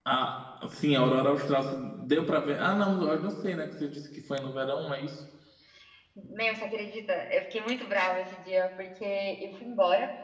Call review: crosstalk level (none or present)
none